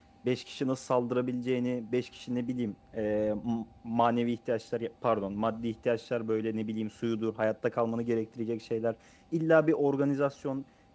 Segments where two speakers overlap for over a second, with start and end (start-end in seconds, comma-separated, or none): none